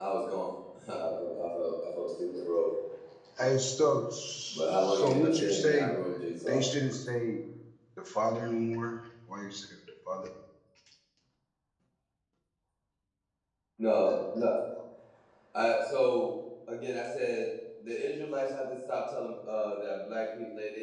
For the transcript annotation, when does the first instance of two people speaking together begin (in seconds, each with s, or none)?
4.5 s